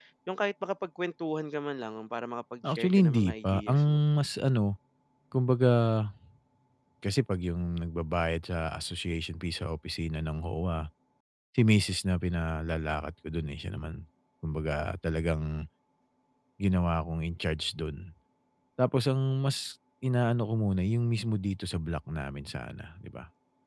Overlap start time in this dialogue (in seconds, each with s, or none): 2.6 s